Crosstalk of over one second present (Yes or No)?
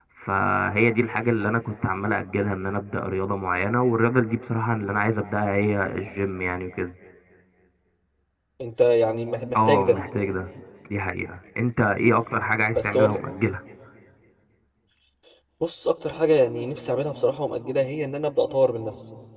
No